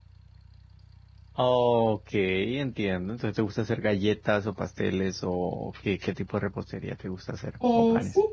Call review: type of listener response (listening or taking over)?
taking over